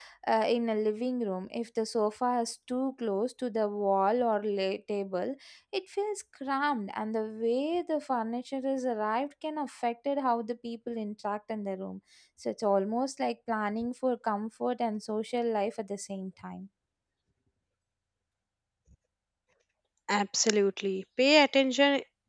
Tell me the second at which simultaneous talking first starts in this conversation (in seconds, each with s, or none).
none